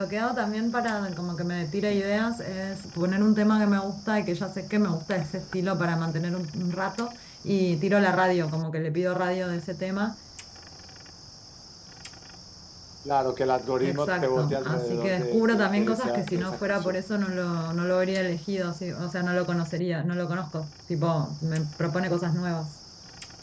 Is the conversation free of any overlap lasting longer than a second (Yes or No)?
No